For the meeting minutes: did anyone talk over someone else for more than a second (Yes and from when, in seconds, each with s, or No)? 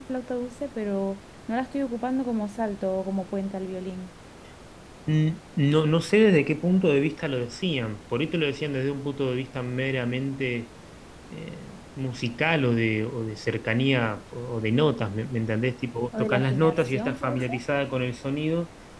Yes, from 16.1 s